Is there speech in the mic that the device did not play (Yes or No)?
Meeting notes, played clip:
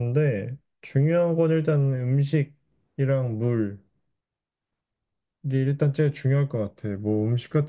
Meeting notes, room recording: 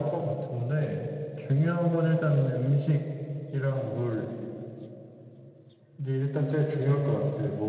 No